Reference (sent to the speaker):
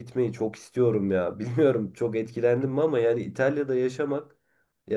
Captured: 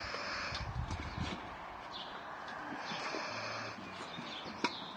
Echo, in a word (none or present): none